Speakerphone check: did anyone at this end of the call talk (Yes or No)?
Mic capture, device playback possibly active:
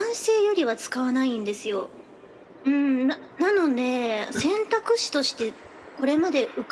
Yes